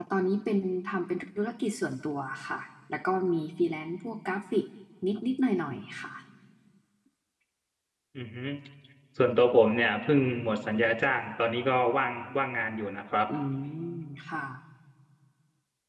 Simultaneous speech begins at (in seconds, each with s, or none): none